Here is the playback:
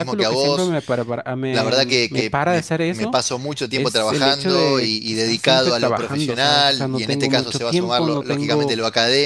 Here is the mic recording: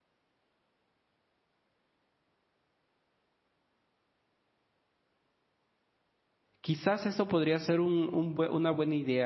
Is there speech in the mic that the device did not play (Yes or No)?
Yes